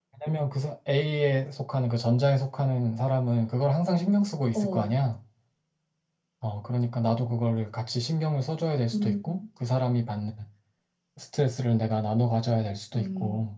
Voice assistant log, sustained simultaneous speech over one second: none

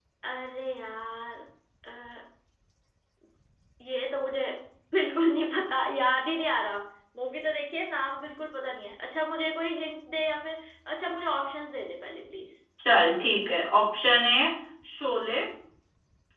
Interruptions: none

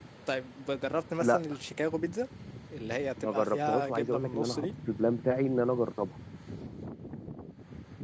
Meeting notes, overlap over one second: present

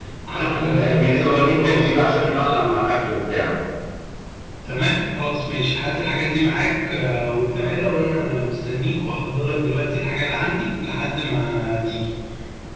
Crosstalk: present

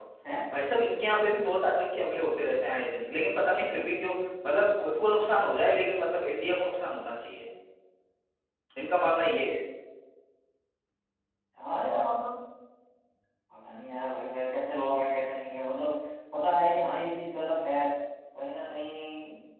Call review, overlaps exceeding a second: none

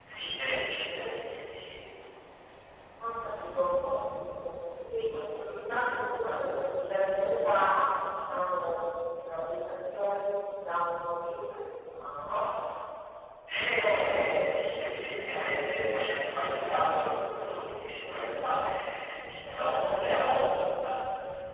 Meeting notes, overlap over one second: present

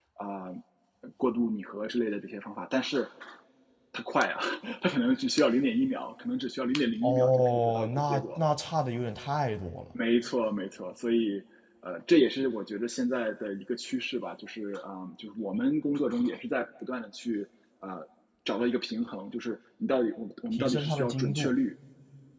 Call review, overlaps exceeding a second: present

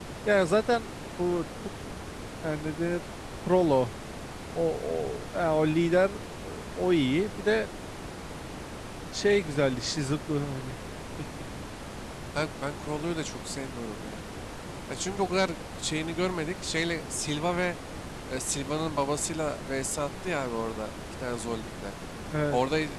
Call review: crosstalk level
none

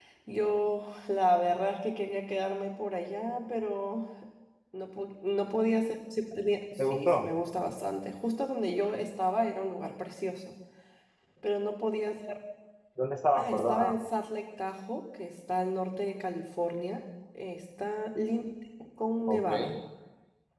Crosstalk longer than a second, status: none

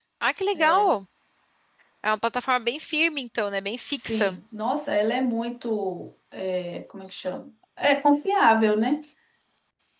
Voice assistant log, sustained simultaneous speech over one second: none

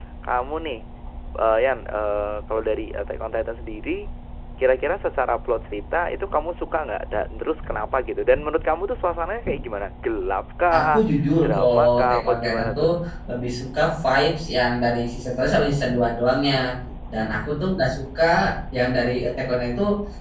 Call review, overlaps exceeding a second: present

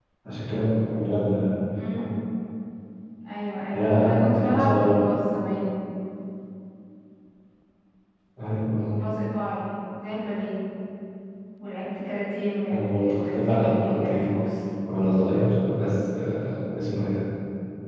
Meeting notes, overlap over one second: present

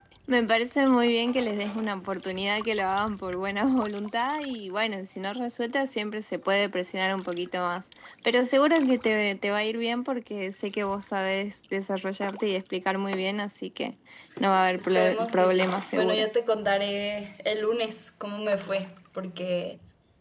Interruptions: present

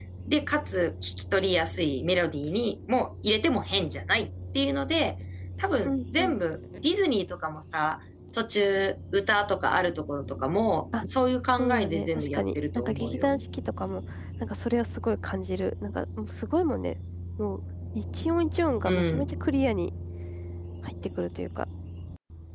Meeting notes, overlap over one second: present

